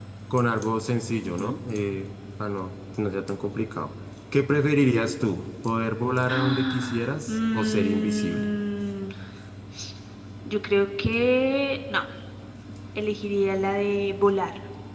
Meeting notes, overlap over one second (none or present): present